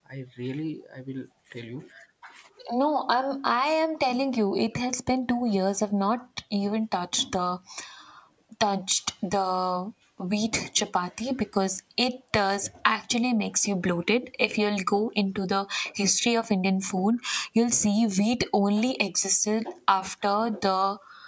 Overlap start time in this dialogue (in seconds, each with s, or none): none